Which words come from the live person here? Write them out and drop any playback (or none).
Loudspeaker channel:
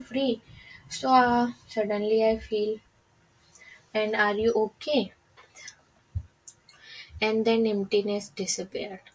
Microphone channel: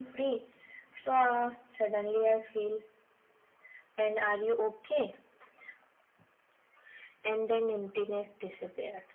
none